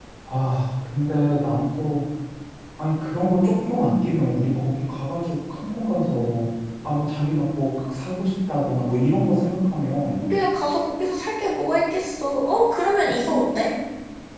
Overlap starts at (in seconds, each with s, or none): none